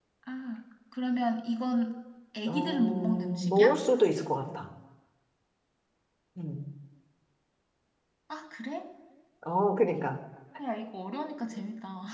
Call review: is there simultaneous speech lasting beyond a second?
Yes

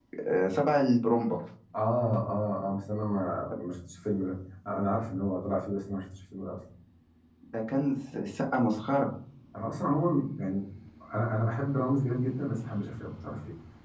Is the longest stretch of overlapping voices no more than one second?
Yes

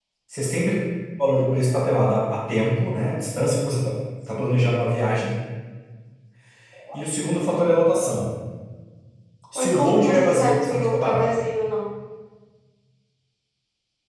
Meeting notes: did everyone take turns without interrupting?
No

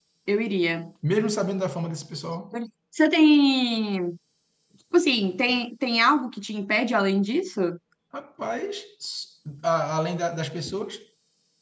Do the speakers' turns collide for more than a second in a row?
No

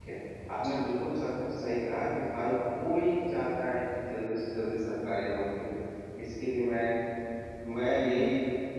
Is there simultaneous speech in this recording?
No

